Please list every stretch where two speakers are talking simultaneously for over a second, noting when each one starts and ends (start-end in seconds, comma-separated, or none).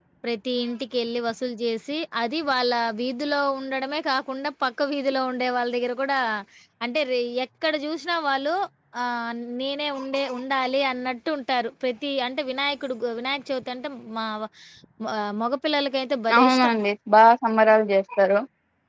none